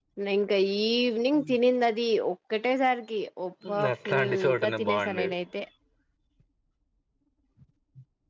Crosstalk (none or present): present